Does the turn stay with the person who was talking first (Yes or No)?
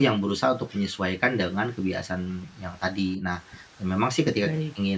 Yes